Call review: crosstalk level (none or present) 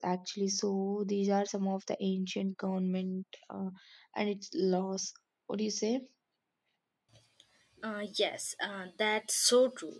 none